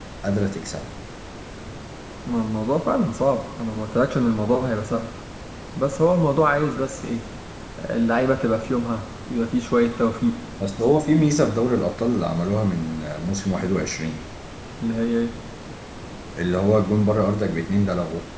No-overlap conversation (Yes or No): Yes